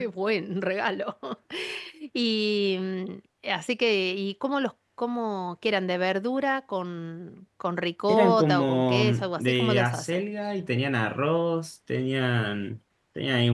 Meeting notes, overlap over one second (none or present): present